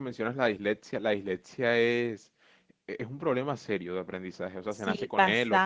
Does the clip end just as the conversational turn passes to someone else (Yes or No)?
Yes